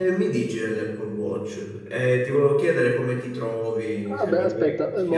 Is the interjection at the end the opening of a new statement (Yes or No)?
Yes